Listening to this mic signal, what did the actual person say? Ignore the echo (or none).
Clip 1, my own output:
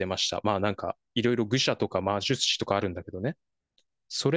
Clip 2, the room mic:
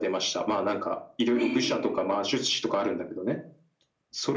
はい、